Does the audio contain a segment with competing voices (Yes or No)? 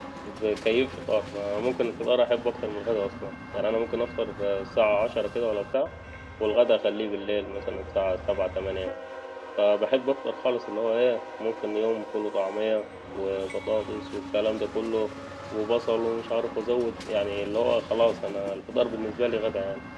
No